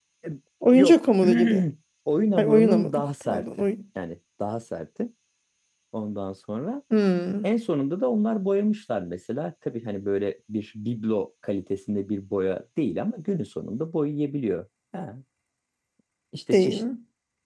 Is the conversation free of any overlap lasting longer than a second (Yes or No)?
No